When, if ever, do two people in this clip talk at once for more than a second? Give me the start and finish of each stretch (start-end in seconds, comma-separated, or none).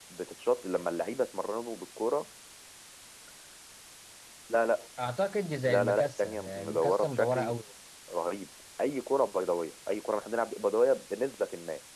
5.7-7.5